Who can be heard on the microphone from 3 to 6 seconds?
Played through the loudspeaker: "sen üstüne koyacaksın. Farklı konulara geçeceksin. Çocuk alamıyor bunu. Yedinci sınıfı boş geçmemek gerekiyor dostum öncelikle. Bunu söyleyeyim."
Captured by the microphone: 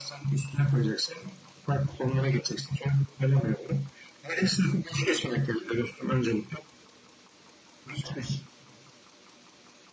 echo only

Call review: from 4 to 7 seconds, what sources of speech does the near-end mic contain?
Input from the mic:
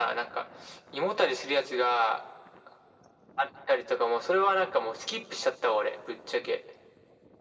echo only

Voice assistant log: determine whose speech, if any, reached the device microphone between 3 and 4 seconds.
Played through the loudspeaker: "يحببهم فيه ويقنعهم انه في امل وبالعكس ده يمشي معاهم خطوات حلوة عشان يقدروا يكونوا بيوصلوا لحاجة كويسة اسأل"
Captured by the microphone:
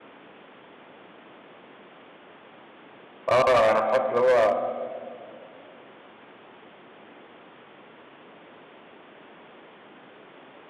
user only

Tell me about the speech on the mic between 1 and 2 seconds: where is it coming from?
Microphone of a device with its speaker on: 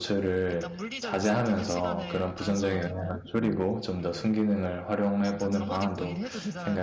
both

